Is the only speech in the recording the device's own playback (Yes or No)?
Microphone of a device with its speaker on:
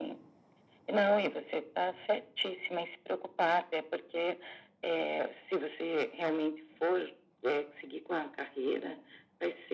Yes